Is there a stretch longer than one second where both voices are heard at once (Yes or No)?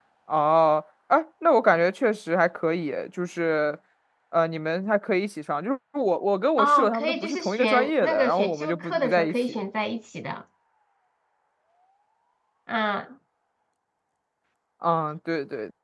Yes